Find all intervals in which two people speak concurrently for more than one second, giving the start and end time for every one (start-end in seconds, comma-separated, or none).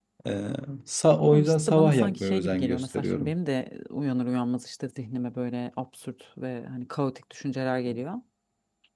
1.3-3.3